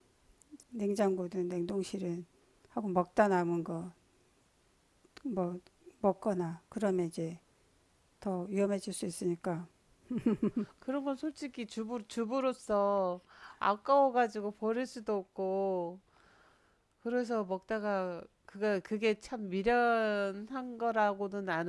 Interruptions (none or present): none